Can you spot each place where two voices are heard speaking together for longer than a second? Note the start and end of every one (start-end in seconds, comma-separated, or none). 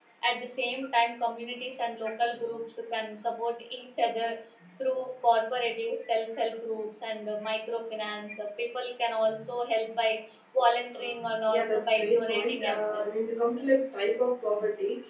11.5-13.0